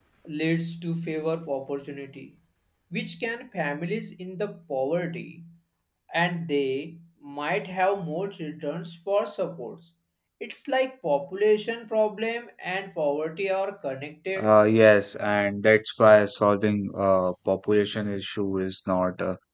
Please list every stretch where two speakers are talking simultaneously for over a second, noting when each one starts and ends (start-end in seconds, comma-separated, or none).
none